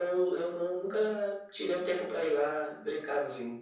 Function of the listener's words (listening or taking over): taking over